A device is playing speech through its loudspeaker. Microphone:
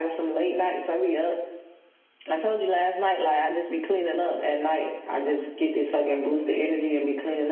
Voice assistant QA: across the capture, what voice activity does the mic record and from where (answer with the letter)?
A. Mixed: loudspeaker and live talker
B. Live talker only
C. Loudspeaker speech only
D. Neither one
C